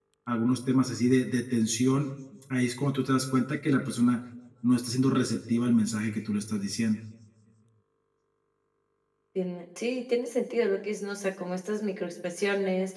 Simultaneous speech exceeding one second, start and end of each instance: none

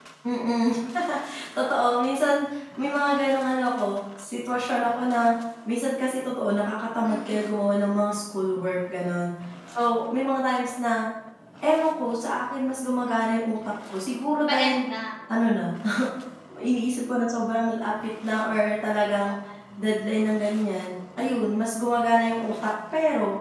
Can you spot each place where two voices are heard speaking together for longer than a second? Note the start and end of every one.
none

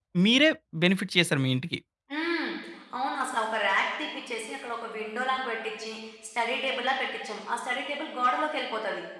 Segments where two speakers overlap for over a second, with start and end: none

